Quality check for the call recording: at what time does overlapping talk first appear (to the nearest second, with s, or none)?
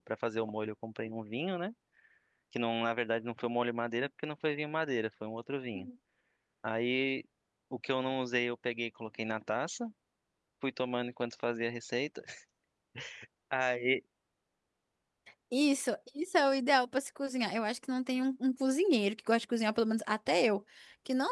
none